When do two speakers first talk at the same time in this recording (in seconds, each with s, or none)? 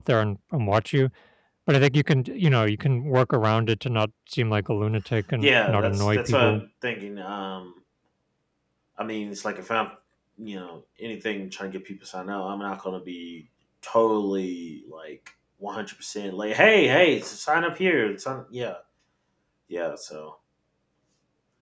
5.4 s